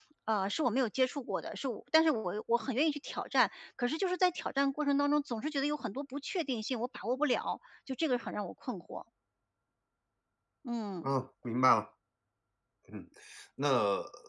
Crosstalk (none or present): none